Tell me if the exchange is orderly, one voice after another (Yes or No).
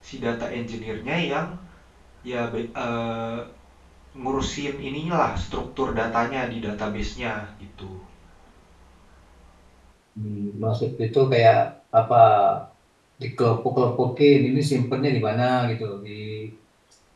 Yes